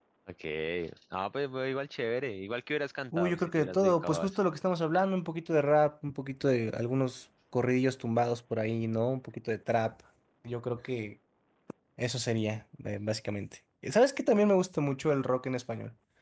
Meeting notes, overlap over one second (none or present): present